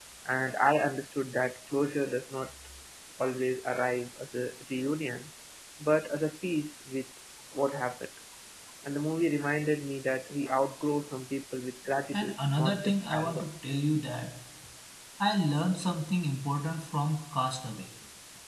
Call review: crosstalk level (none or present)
present